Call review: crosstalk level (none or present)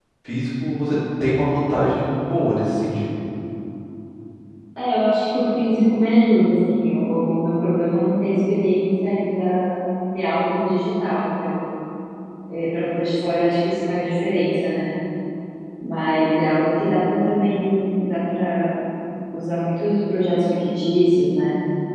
none